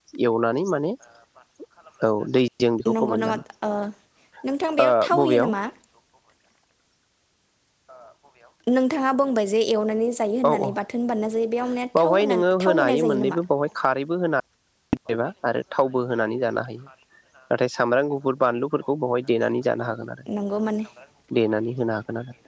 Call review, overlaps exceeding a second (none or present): present